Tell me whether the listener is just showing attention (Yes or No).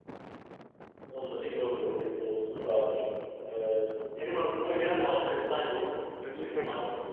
No